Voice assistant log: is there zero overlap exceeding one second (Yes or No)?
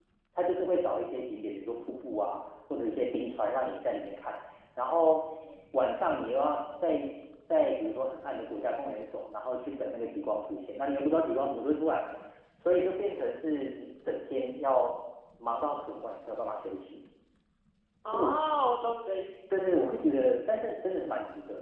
Yes